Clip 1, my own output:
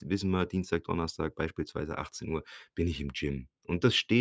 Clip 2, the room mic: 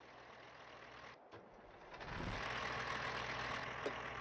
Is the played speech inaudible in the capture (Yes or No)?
Yes